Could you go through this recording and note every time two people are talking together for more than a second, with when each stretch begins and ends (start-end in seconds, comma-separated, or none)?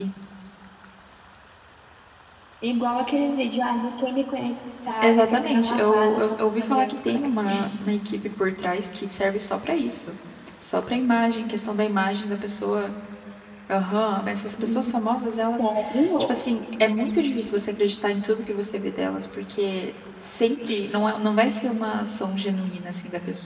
5.0-7.2